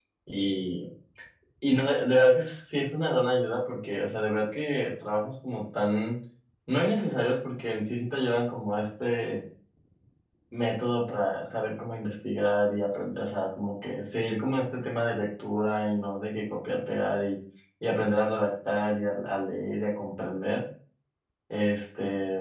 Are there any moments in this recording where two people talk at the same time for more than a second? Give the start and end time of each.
none

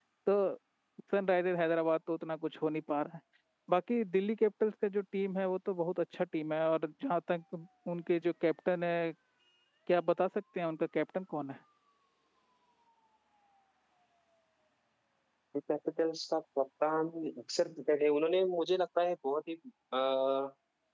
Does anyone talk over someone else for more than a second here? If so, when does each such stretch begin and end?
none

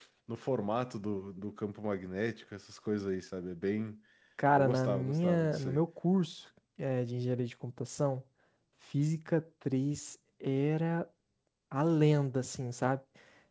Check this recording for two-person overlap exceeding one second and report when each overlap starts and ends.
4.5-5.8

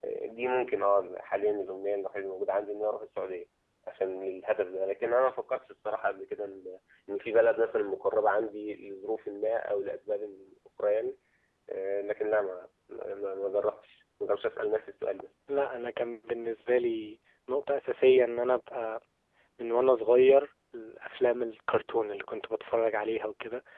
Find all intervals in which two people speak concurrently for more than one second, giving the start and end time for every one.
none

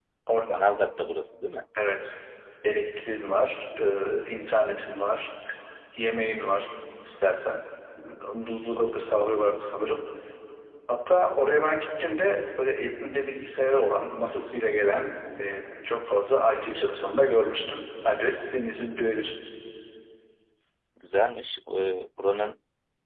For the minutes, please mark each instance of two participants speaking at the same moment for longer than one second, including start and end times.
none

